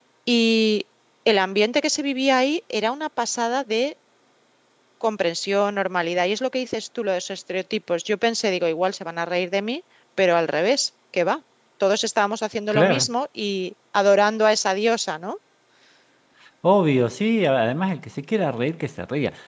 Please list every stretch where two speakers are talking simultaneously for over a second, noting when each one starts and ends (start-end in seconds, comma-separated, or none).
none